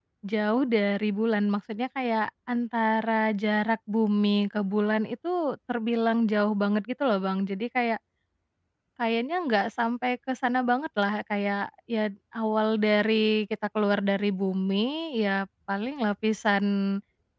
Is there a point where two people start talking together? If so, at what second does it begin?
none

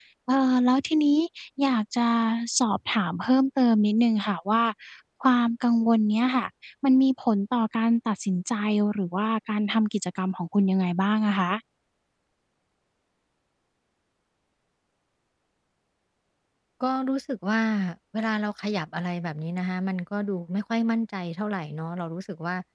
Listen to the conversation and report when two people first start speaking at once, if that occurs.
none

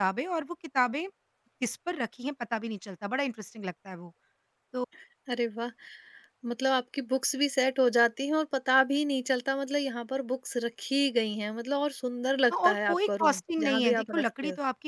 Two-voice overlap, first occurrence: 12.5 s

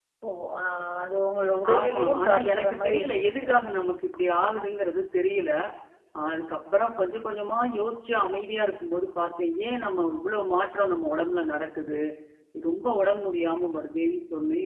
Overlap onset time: 1.8 s

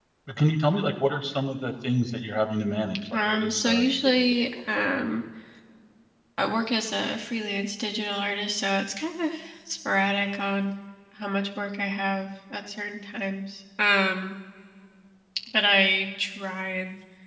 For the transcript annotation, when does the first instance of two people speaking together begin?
3.0 s

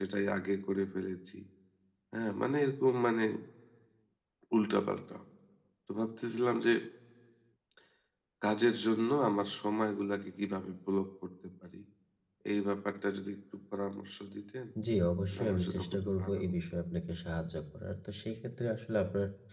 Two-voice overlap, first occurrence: 15.3 s

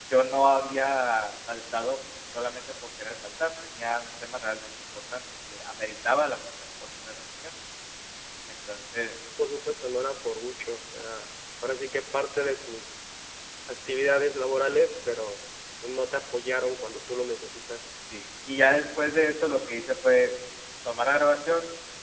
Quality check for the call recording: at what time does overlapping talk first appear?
none

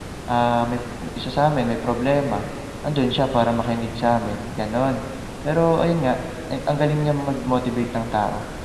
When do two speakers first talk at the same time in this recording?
none

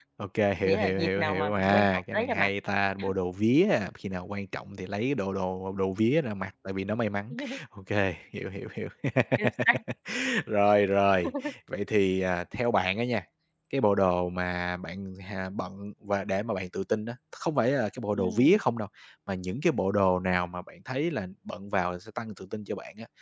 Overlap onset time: 0.6 s

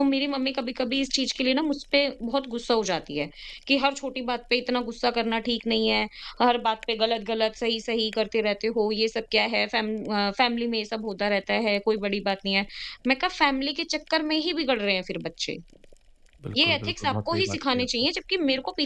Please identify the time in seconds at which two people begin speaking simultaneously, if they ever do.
16.6 s

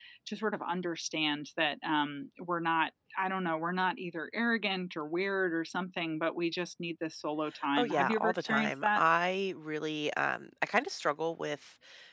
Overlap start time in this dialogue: 7.5 s

